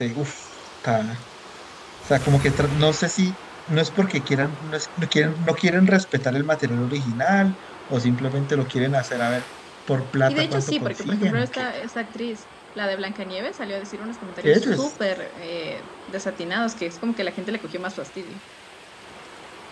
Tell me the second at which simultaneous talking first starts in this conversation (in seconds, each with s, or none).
10.3 s